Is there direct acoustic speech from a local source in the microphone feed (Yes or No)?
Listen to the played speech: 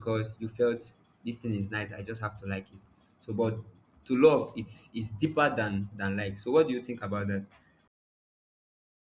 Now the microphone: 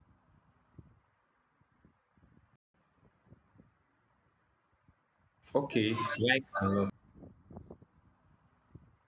Yes